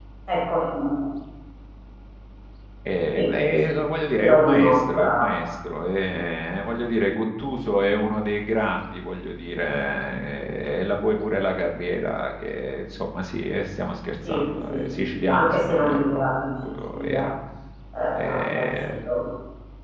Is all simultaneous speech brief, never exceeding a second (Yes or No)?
No